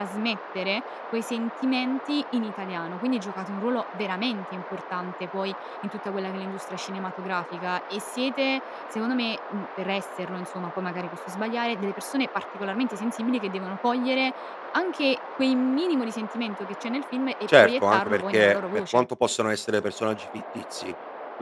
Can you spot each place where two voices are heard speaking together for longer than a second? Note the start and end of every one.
17.6-19.1

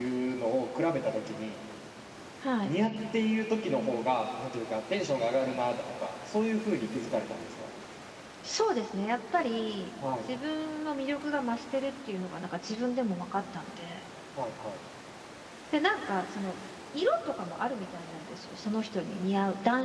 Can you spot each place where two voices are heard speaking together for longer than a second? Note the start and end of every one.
none

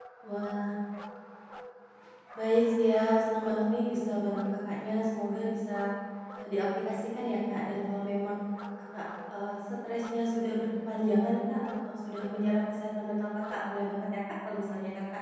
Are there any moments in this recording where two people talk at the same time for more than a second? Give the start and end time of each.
none

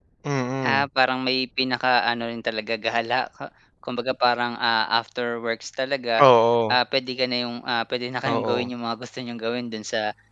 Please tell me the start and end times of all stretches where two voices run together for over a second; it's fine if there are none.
none

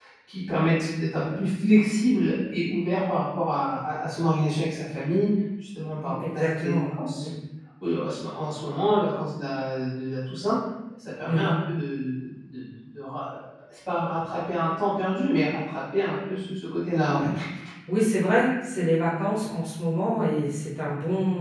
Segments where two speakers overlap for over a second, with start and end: 6.0-7.2

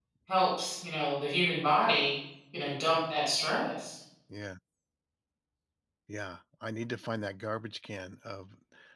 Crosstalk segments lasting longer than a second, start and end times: none

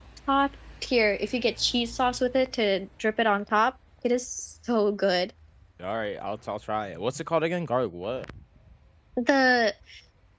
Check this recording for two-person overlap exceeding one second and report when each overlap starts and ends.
none

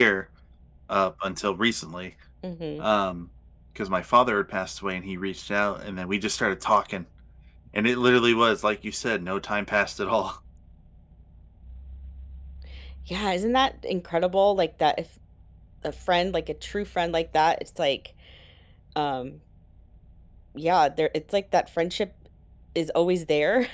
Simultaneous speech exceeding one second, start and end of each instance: none

